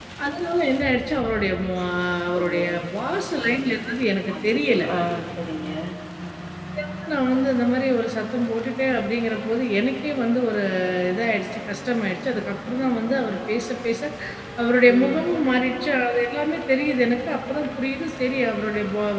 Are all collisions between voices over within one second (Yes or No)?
Yes